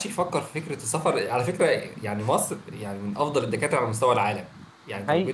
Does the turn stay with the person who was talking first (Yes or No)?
Yes